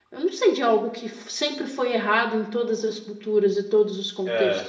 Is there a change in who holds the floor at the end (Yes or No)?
Yes